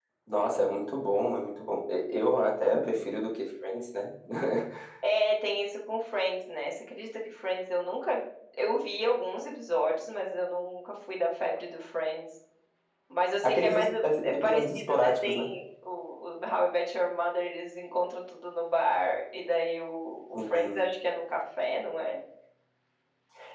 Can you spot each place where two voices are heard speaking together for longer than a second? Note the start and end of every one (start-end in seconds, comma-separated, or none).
13.4-15.5